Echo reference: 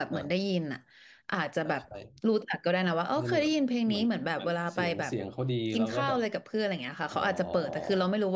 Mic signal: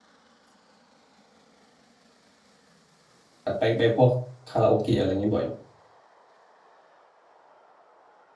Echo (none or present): none